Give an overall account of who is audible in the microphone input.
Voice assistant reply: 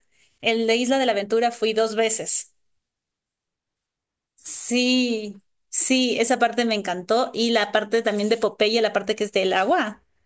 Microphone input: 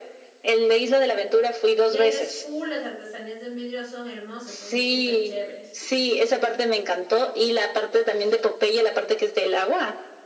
both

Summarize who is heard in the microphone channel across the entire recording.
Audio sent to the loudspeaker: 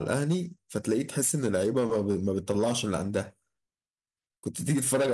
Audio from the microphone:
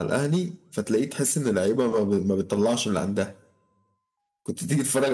echo only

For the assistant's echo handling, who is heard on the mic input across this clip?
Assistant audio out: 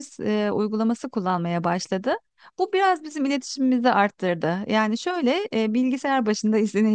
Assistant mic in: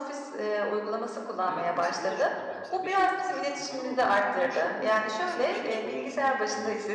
both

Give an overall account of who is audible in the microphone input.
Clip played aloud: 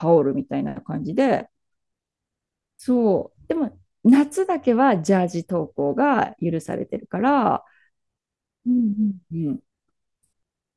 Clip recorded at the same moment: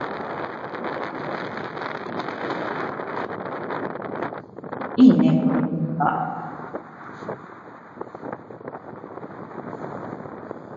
user only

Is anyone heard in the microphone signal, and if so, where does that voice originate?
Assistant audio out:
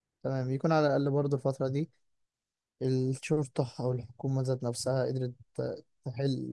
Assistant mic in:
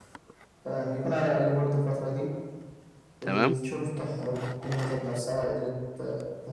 both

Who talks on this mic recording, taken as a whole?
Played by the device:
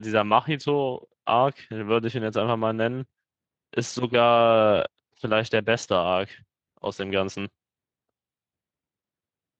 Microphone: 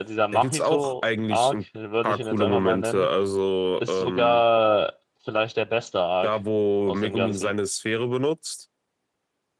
both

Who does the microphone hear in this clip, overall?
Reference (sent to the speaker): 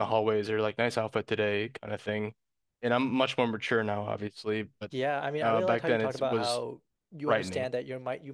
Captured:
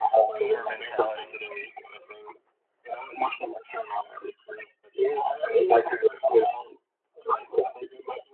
both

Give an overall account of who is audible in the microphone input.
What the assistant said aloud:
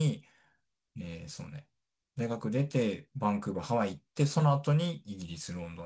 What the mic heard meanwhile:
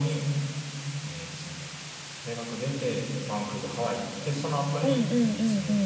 both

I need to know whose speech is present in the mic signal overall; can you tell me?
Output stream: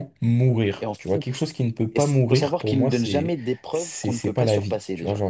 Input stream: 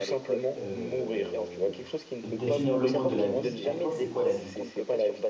both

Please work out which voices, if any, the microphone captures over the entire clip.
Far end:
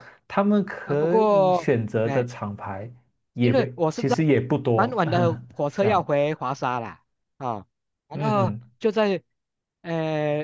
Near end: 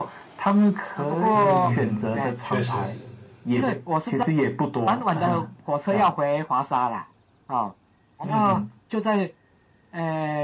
both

